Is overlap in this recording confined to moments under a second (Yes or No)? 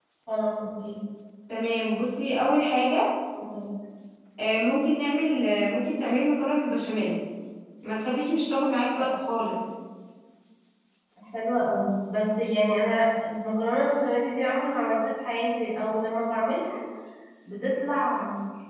Yes